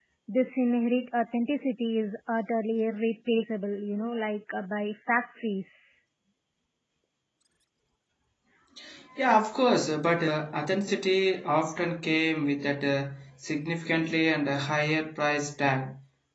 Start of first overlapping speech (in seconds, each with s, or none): none